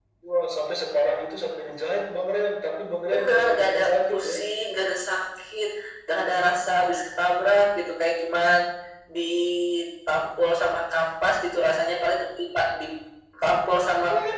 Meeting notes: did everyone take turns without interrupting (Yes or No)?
No